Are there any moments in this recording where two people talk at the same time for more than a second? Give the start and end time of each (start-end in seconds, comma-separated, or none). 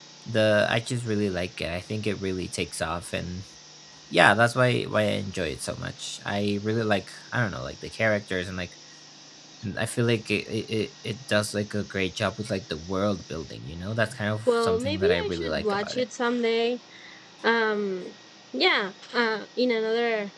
14.5-16.0